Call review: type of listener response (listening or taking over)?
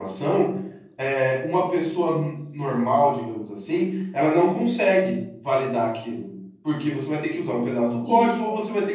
listening